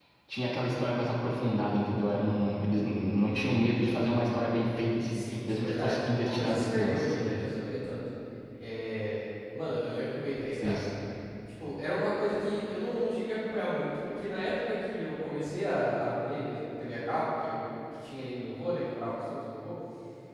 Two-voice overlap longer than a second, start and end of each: 5.1-7.2

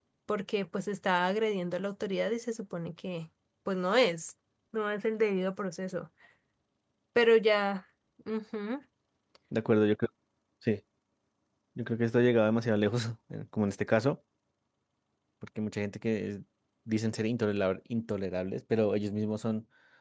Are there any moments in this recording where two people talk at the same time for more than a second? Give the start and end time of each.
none

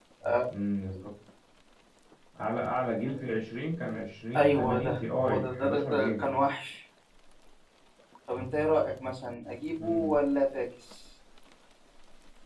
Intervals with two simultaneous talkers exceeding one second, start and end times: 4.4-6.3

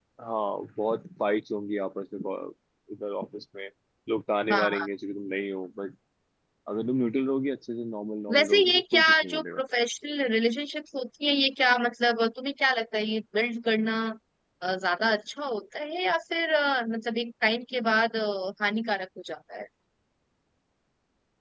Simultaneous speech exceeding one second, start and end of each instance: 8.3-9.6

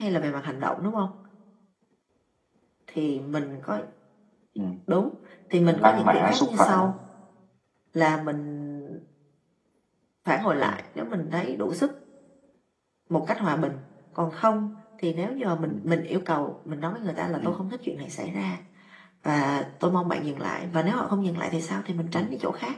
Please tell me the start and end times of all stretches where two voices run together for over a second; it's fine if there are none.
5.7-6.9

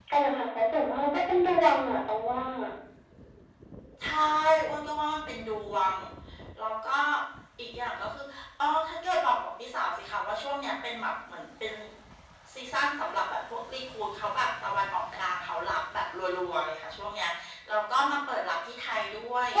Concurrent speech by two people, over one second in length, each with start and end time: none

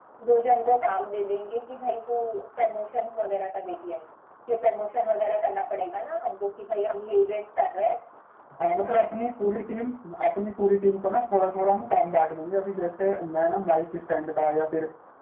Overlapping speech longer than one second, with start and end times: none

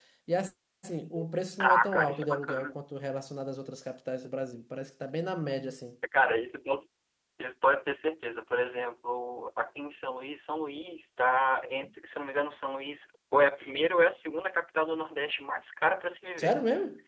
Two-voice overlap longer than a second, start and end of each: 1.6-2.8

